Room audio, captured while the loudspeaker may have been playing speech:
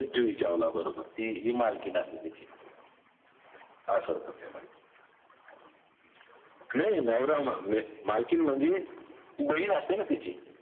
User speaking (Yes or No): No